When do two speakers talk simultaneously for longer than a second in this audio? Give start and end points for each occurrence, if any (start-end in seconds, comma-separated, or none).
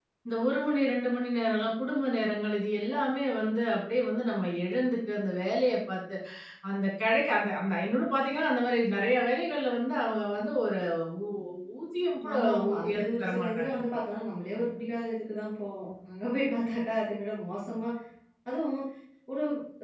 12.3-13.7